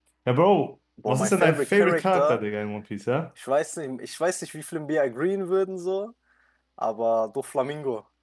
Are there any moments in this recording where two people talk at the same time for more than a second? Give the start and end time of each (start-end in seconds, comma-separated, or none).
1.1-2.4